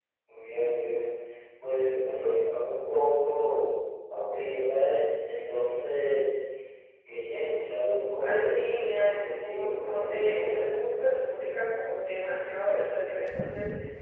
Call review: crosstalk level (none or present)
present